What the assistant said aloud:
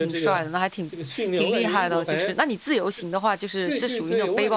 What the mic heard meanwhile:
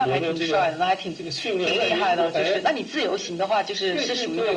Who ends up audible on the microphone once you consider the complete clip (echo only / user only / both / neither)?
echo only